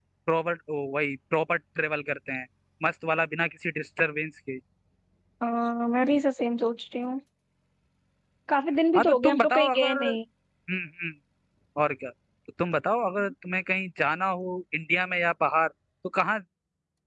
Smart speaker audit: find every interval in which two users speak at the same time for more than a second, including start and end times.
8.9-10.2

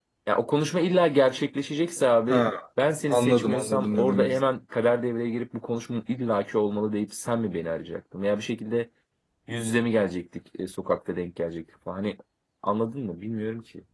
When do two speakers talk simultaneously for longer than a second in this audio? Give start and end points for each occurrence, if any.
3.1-4.3

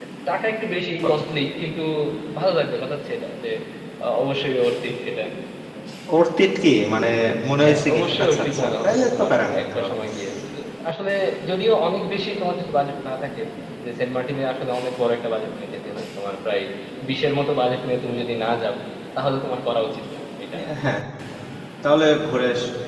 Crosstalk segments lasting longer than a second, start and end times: 7.6-9.8

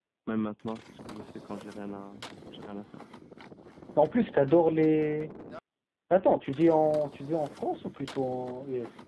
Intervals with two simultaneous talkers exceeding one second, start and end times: none

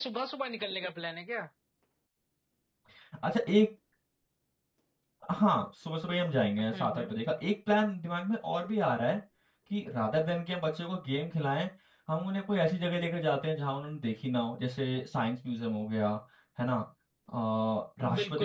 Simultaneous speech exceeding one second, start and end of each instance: none

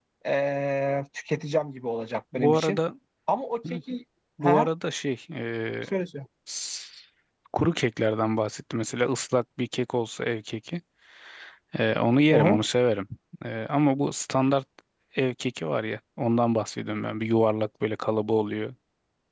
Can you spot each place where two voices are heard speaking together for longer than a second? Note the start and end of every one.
none

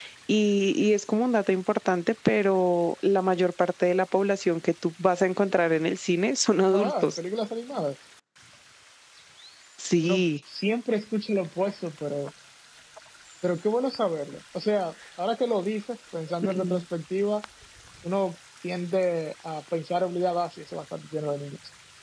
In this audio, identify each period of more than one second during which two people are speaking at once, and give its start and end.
none

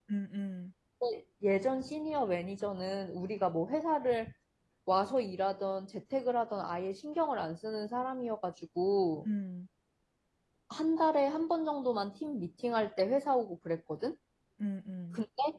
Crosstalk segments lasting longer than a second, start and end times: none

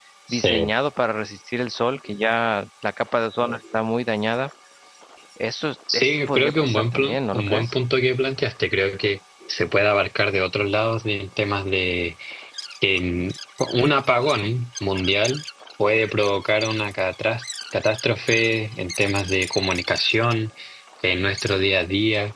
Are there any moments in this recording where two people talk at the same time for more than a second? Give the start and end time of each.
5.9-7.7

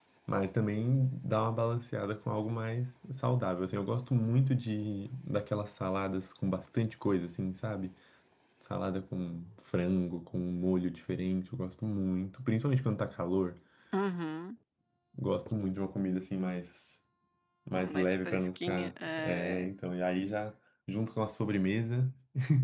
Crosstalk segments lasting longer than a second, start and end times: 17.8-19.7

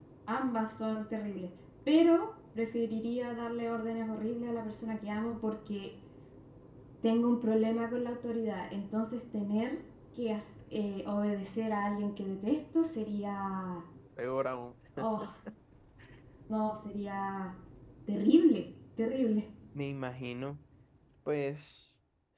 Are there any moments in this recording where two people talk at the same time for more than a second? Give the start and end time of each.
none

